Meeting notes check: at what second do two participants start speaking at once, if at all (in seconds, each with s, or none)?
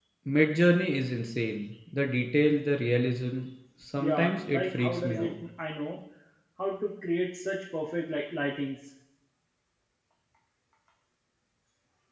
4.0 s